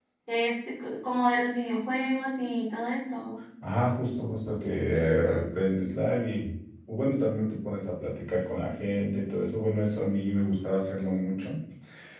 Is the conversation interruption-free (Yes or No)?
Yes